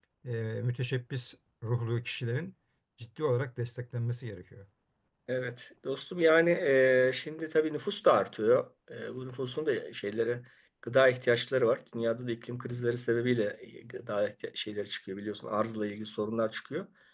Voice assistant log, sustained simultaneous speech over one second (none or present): none